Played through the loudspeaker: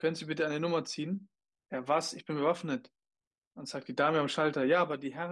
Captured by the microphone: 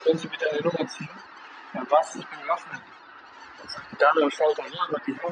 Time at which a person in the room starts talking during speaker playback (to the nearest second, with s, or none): none